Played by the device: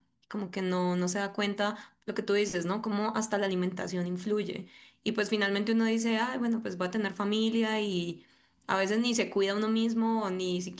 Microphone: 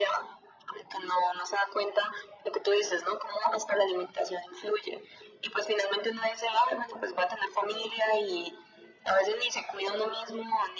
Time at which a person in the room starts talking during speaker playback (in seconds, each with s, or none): none